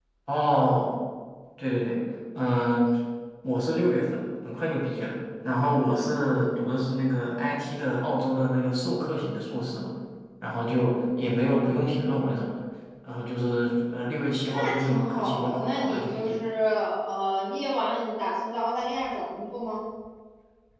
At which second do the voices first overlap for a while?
14.5 s

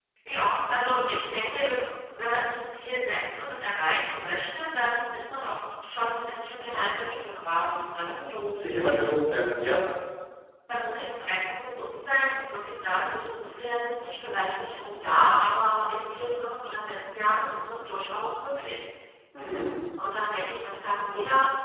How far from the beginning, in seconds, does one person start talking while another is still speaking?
none

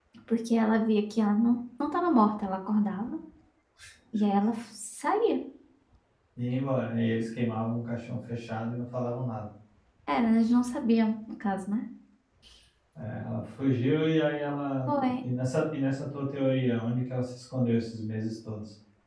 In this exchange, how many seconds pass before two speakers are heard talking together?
none

